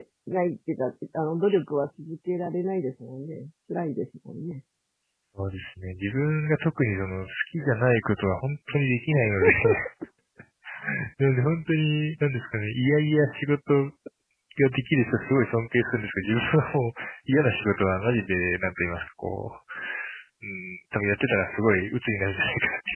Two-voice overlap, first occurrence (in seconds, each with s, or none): none